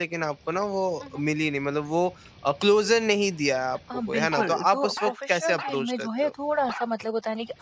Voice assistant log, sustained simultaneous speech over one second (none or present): present